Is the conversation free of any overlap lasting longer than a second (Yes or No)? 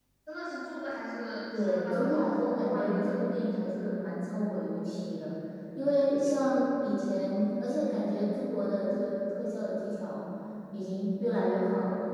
No